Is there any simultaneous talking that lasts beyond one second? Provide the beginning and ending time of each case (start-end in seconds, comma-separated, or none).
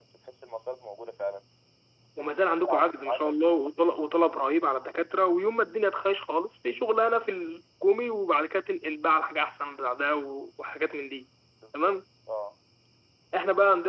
2.2-3.4